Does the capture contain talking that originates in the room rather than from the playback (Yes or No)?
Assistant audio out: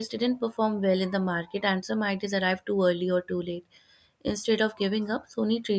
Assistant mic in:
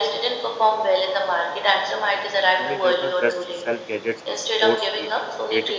Yes